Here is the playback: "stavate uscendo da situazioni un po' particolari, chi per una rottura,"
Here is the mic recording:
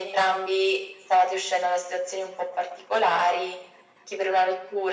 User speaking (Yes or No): No